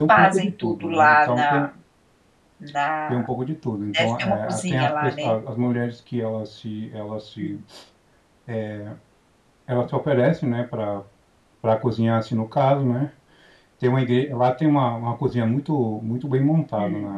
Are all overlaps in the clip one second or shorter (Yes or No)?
No